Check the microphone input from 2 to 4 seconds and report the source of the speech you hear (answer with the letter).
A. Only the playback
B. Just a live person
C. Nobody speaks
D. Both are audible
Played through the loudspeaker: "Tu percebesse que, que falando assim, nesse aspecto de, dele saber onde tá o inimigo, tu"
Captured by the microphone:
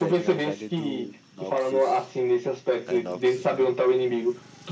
D